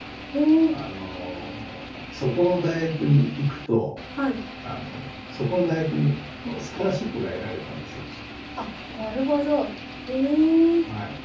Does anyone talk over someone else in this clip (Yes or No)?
No